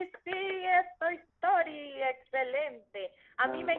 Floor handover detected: No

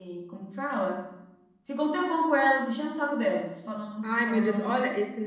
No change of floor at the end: No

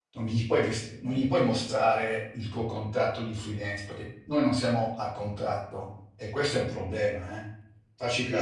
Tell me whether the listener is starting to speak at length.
Yes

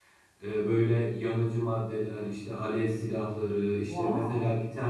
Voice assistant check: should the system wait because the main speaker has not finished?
Yes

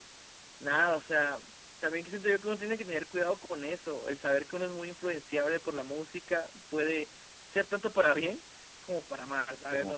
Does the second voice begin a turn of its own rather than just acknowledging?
Yes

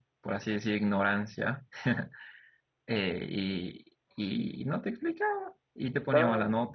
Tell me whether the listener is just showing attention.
Yes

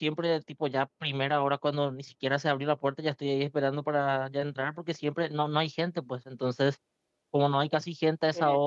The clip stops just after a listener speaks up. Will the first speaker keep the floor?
Yes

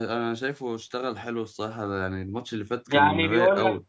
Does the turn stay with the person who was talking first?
No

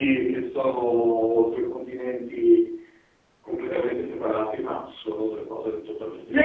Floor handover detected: Yes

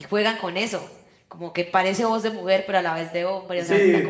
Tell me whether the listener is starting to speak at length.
Yes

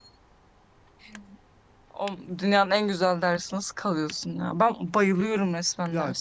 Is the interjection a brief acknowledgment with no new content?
No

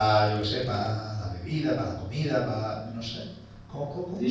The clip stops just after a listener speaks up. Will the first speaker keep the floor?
No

